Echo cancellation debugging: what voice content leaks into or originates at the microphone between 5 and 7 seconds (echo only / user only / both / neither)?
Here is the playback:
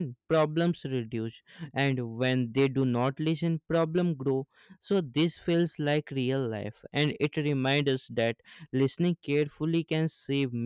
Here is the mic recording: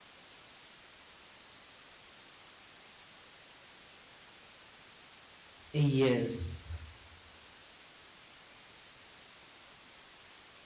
user only